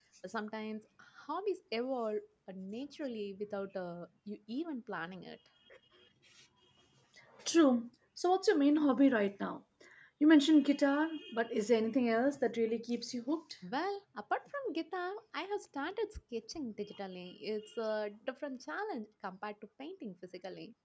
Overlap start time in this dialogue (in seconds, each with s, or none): none